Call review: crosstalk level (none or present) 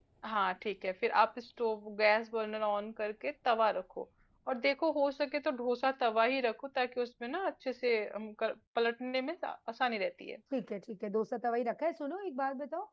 none